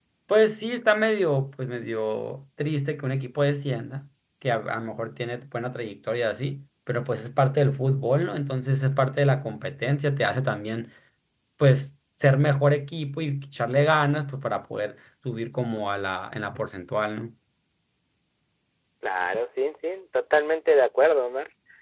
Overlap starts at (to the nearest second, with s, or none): none